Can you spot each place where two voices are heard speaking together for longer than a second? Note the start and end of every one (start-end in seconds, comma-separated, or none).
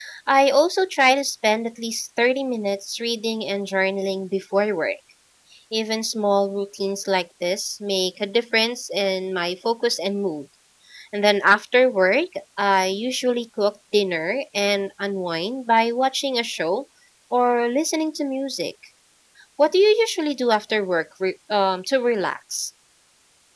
none